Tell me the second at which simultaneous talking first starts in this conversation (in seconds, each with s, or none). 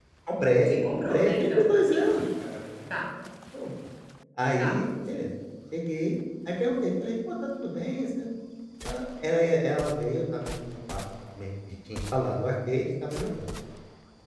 0.7 s